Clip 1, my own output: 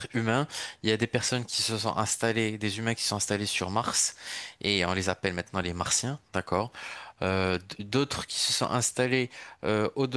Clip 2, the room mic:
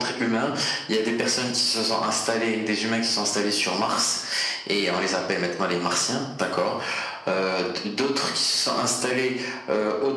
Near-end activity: none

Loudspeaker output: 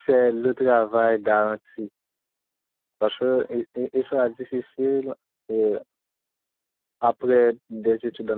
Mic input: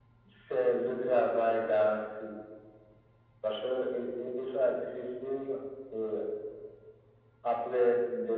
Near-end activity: none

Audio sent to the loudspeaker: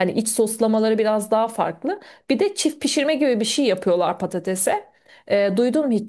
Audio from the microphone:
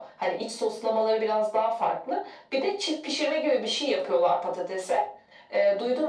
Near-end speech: none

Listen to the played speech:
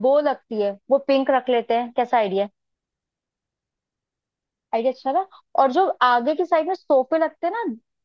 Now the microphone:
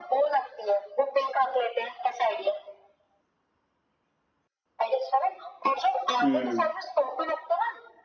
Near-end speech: present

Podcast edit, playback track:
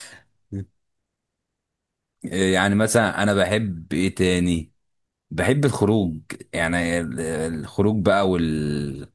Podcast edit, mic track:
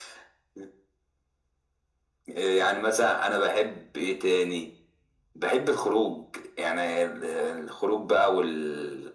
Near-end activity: none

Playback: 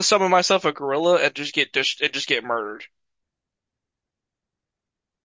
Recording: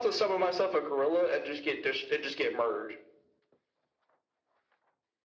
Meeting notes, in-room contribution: none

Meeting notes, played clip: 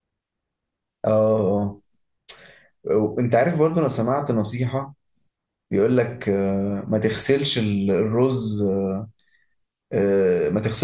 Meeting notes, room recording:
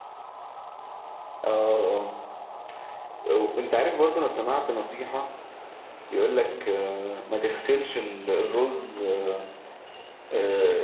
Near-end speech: none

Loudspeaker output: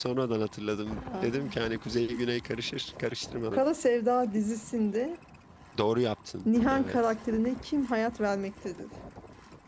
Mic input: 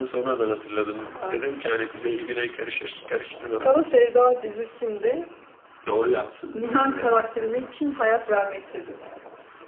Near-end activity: none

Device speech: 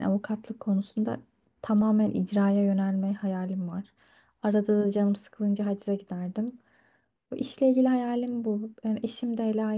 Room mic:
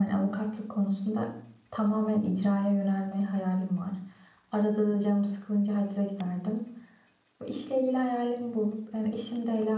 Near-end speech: none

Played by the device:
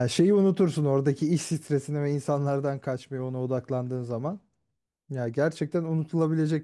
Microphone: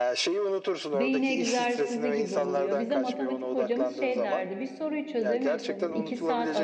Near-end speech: present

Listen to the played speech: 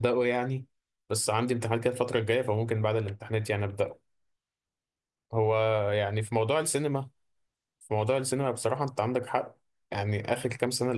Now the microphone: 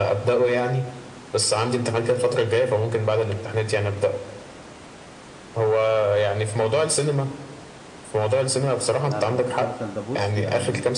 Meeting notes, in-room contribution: present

